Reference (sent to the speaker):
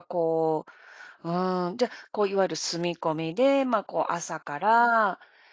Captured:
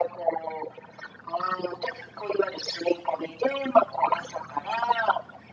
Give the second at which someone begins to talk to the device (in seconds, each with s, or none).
none